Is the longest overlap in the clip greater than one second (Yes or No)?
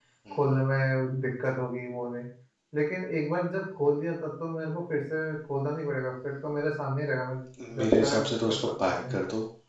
Yes